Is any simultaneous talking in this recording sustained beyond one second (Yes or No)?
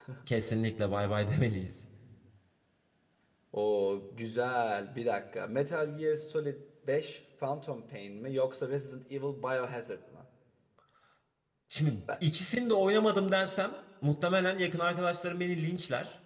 No